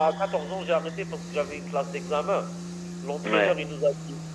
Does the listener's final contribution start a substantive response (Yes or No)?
No